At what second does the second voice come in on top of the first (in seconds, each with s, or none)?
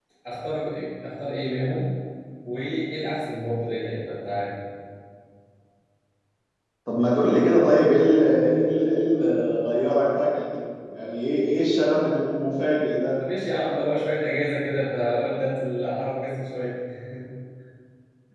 none